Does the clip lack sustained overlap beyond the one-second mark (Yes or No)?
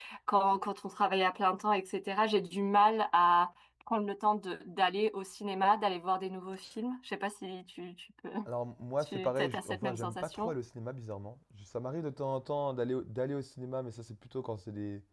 No